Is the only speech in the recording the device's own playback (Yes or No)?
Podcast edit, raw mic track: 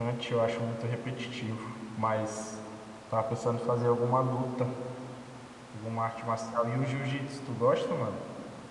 No